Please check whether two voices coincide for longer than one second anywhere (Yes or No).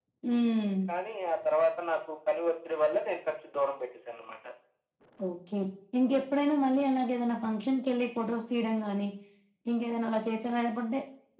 No